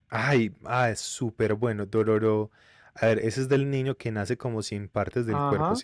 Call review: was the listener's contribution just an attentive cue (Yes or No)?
No